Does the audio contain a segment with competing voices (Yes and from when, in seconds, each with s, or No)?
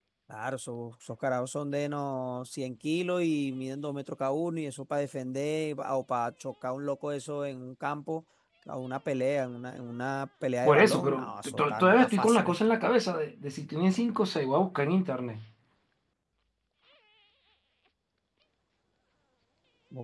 Yes, from 10.6 s